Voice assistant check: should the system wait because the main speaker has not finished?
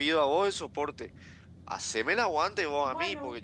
Yes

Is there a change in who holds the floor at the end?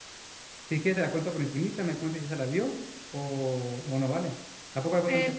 Yes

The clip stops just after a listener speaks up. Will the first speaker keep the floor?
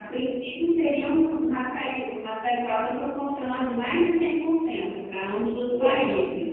No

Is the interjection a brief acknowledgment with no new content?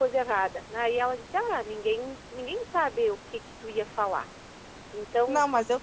No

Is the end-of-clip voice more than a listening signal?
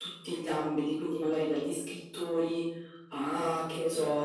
No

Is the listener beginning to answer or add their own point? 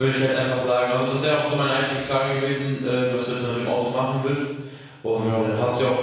No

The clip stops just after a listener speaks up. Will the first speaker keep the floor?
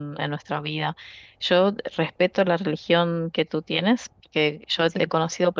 Yes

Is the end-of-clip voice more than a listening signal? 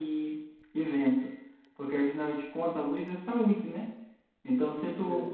No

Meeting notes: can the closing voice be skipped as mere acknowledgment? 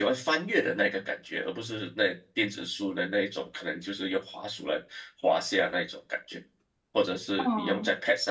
Yes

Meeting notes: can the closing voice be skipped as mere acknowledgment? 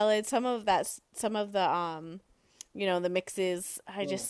Yes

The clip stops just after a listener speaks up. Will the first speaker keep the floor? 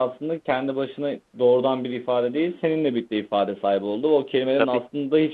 Yes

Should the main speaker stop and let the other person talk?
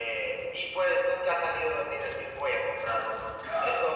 No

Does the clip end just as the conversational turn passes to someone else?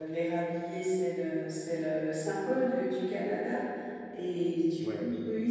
No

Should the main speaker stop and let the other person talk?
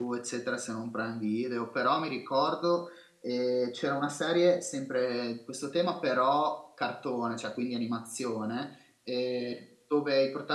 No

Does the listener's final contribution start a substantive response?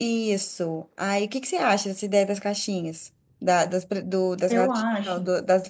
No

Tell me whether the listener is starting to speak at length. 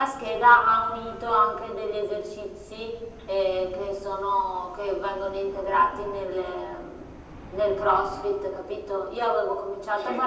No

